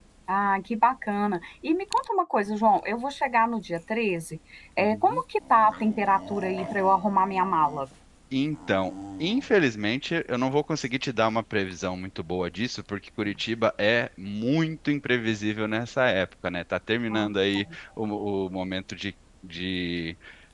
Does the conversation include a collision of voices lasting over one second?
No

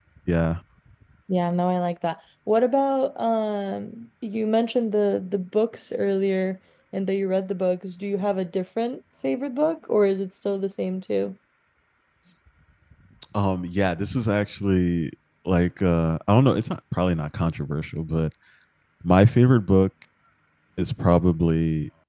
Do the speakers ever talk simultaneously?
No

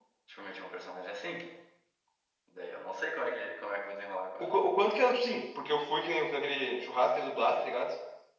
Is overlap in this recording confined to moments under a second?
Yes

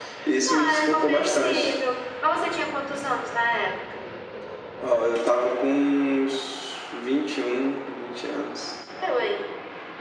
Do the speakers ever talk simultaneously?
Yes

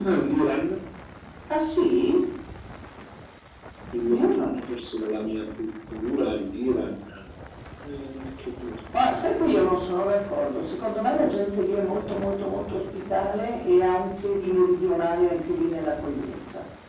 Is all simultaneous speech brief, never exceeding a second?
Yes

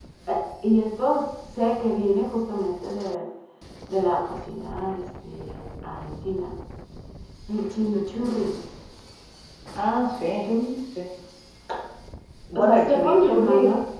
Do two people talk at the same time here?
Yes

